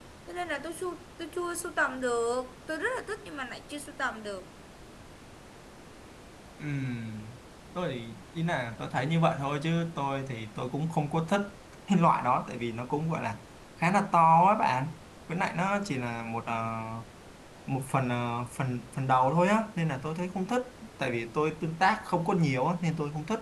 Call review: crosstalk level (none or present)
none